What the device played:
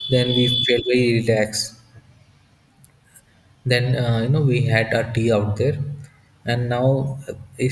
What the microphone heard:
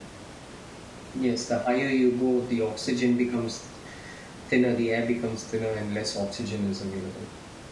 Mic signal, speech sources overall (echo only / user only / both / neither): user only